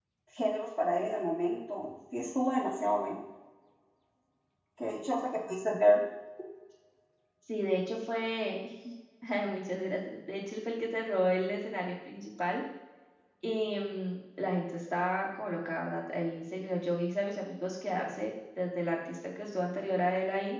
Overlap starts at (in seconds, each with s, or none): none